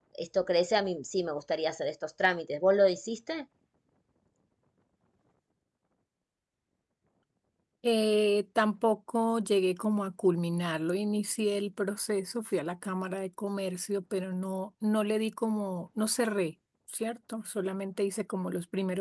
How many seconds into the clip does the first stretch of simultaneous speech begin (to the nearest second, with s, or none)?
none